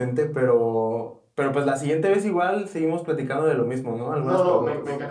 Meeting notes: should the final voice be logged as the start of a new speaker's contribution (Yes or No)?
Yes